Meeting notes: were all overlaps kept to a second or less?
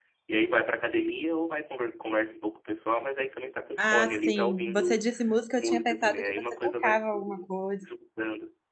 No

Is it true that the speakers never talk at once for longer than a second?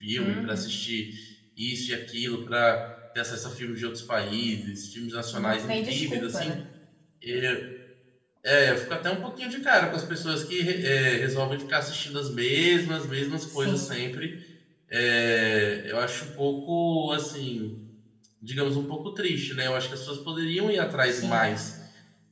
No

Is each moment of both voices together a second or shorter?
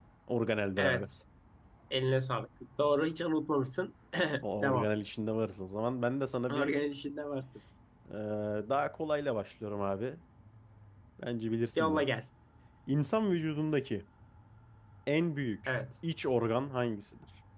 Yes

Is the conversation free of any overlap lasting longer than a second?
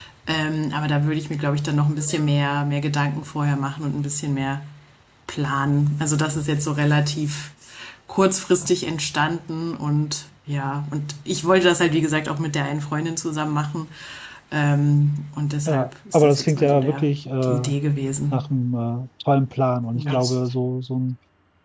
No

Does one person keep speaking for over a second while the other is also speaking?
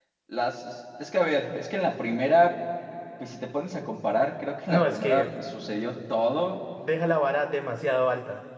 Yes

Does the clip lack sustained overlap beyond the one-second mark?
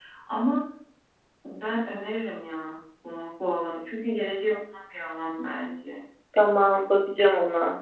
Yes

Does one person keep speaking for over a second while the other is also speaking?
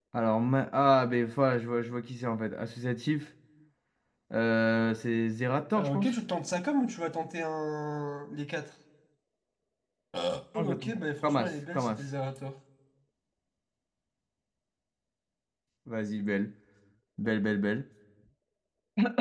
Yes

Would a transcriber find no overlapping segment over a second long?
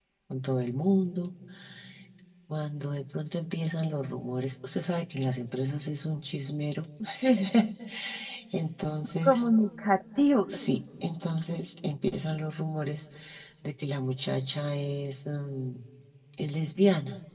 Yes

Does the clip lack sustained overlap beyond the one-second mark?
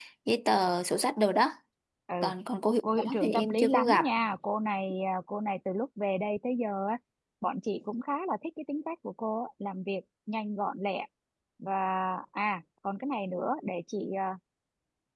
No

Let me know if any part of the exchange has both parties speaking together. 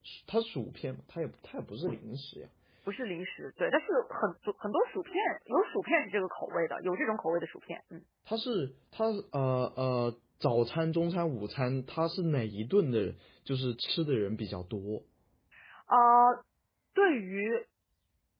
No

